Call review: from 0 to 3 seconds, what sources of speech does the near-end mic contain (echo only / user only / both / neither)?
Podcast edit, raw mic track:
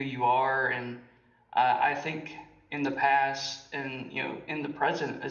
echo only